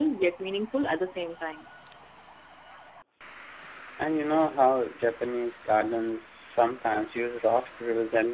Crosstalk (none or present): none